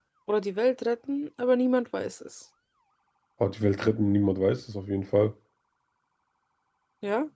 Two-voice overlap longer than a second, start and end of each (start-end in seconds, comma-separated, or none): none